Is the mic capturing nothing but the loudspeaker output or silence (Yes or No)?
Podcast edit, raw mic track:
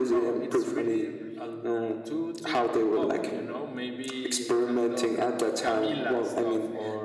No